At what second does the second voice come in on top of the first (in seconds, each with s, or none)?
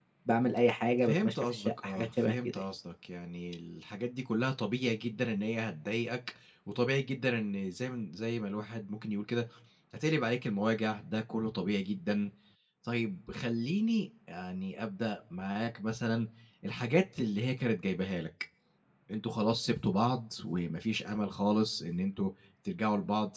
1.1 s